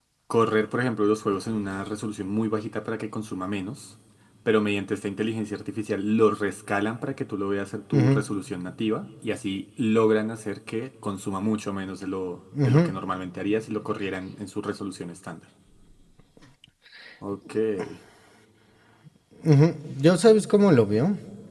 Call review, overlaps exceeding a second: none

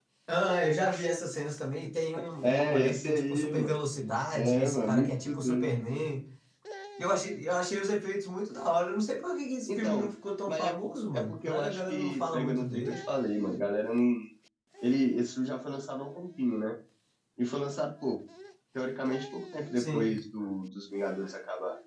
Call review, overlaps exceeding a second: present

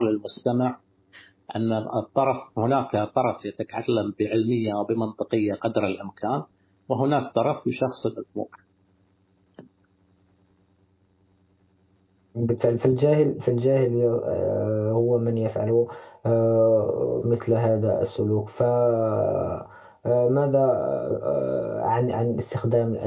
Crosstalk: none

